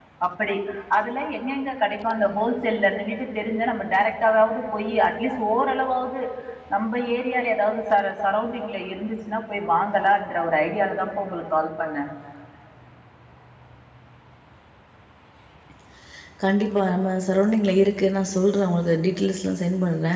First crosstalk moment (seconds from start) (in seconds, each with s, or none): none